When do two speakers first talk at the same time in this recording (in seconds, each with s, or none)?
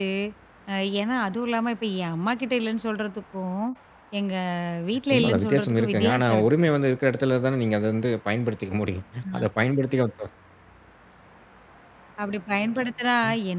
5.1 s